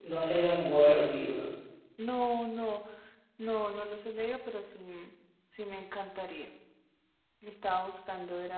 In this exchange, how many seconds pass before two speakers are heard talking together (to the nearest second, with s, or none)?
none